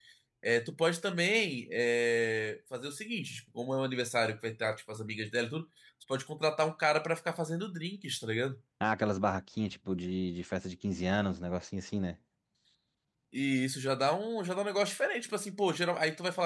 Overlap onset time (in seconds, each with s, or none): none